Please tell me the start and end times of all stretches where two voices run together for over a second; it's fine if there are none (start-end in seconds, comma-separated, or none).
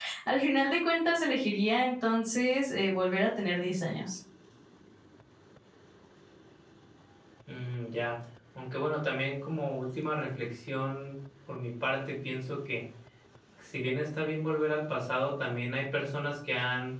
none